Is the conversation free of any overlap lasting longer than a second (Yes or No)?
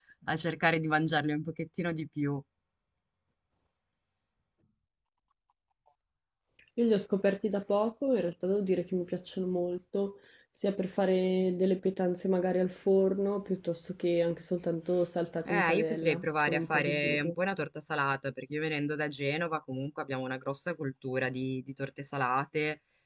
No